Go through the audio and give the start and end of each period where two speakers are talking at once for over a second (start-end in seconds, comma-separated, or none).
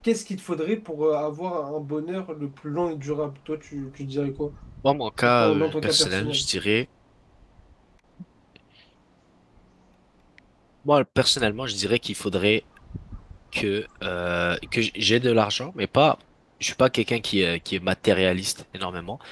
5.2-6.5